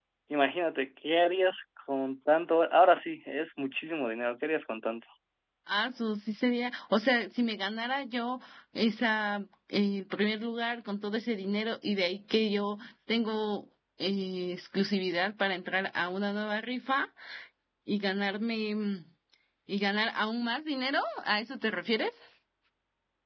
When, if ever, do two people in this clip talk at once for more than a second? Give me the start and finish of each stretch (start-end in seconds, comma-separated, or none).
none